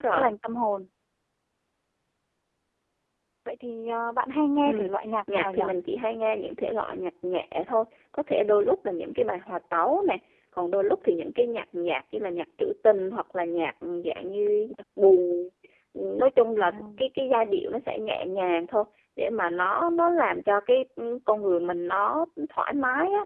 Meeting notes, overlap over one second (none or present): none